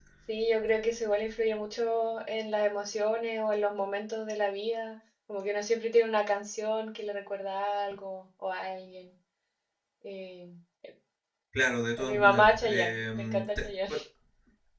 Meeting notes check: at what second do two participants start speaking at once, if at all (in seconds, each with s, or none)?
12.0 s